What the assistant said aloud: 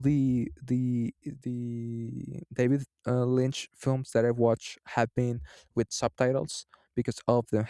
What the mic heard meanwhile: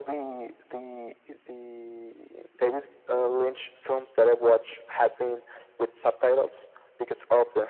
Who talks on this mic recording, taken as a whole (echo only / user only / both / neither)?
echo only